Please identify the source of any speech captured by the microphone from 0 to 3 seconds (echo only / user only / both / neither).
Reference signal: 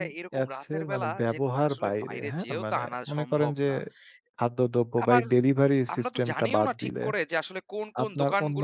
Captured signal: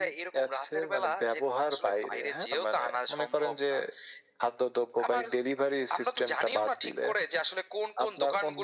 echo only